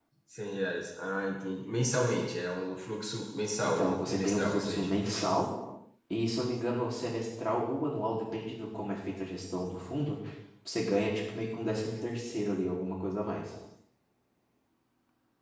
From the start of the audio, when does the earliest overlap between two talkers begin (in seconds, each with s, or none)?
3.6 s